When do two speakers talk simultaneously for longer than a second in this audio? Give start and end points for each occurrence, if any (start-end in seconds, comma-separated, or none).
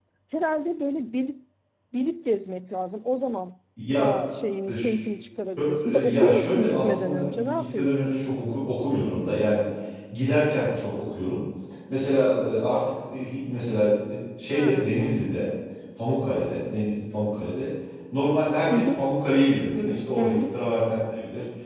5.6-8.2